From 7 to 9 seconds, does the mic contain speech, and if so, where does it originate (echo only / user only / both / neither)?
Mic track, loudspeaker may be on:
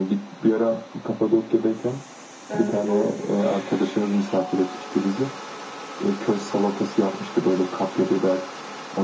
echo only